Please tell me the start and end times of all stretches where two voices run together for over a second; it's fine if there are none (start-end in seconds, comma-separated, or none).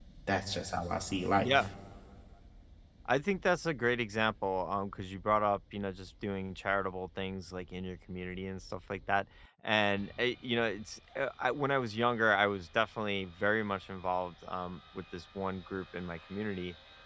none